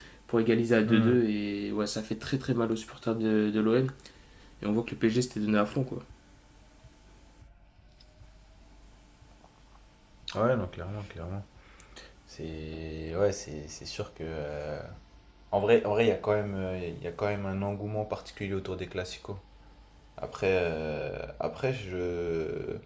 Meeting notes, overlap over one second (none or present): none